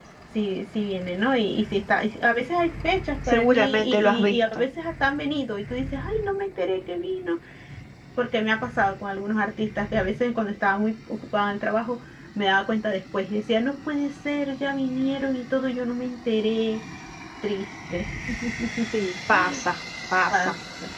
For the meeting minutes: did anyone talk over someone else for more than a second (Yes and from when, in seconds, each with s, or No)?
Yes, from 3.3 s